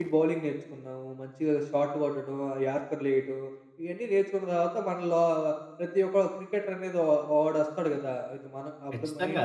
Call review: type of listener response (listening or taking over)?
taking over